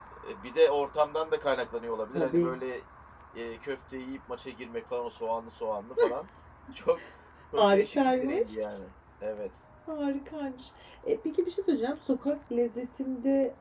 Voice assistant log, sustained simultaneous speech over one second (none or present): present